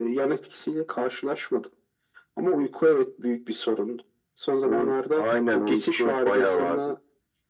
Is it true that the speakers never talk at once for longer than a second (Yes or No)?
No